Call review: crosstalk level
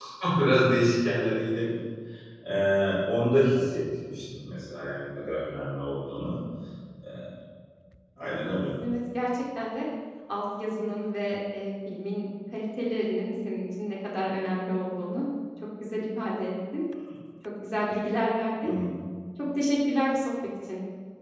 none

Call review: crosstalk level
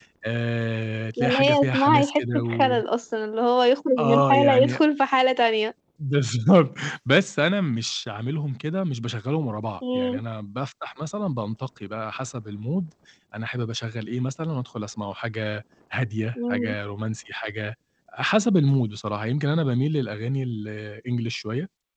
present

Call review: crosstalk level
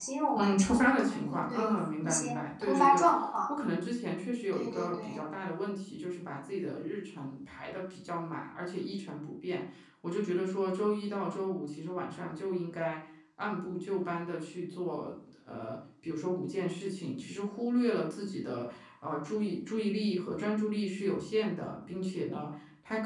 present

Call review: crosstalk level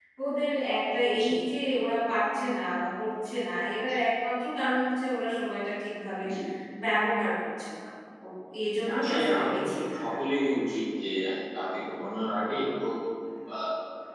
present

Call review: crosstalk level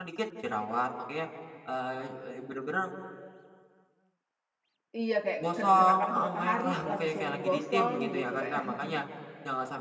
present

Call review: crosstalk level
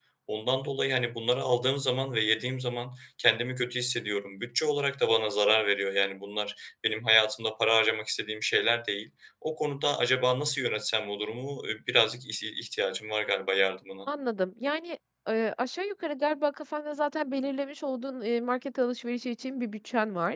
none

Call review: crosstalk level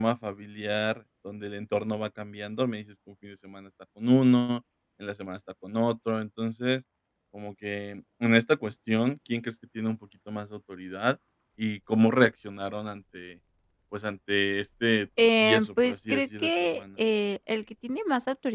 present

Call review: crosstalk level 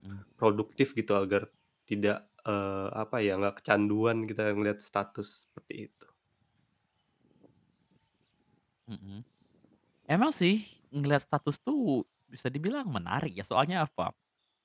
none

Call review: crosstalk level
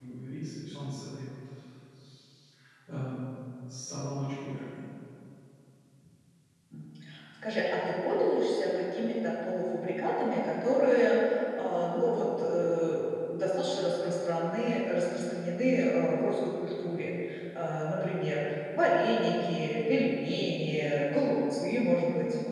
none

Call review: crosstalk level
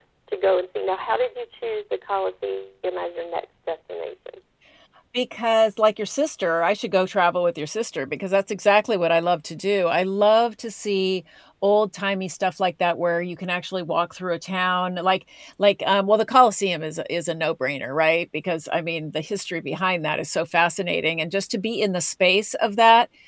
none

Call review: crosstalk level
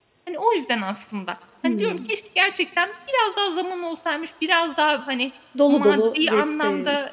present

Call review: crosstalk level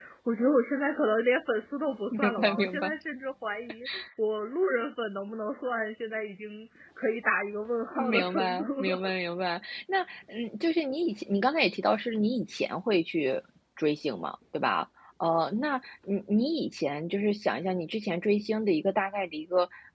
present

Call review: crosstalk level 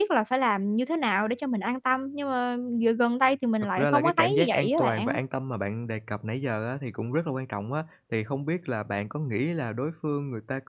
present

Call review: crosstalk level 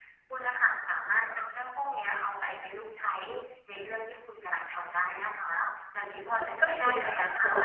present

